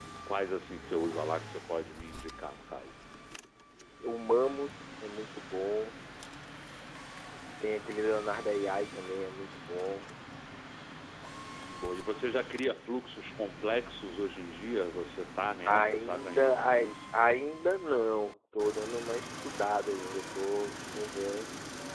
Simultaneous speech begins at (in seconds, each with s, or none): 15.6 s